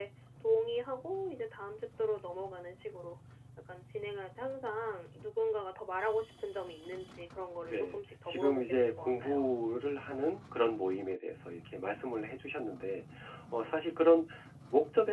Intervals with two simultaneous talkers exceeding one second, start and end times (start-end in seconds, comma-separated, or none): 7.7-9.4